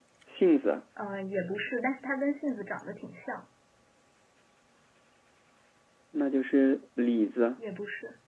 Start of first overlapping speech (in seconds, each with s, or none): none